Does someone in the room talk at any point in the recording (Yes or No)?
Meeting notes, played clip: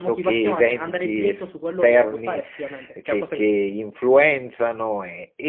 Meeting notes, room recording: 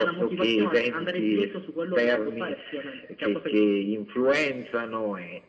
No